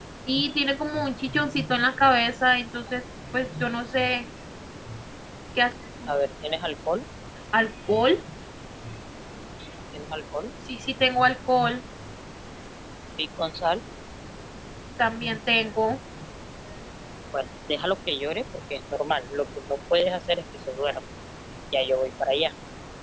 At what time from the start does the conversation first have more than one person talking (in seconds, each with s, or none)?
none